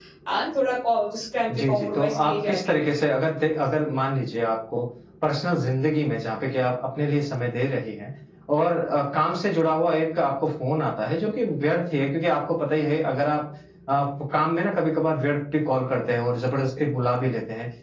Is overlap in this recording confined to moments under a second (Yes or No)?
No